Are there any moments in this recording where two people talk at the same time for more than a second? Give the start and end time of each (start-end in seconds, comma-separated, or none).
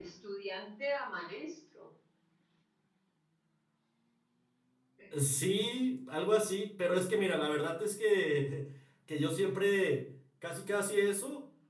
none